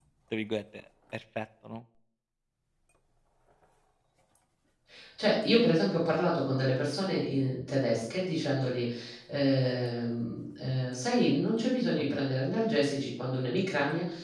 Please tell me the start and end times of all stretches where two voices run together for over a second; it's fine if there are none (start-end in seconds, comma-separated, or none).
none